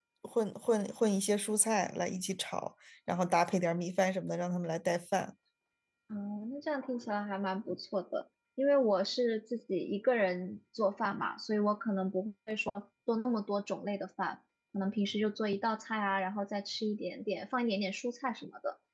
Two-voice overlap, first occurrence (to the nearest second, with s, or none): none